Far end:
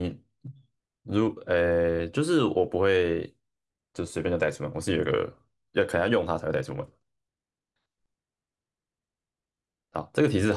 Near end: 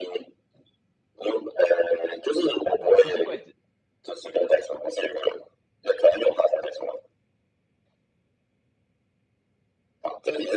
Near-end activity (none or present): present